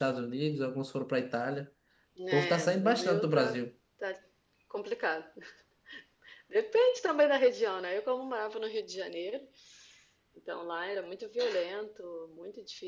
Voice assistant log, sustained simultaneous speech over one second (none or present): present